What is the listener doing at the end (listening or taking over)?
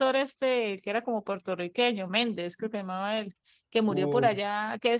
listening